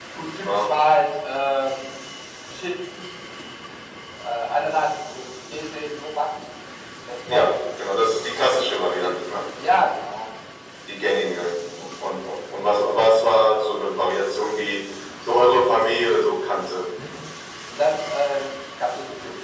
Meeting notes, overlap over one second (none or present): none